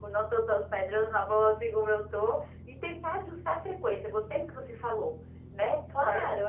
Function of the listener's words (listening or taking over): taking over